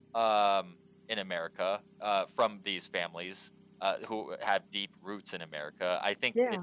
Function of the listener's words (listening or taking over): listening